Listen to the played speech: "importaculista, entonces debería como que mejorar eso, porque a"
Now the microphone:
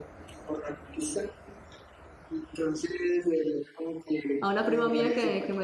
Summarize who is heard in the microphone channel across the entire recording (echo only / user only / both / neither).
both